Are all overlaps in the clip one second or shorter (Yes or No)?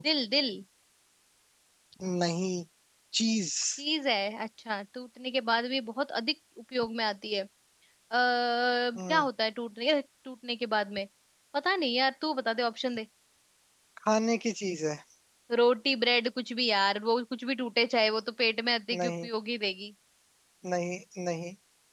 Yes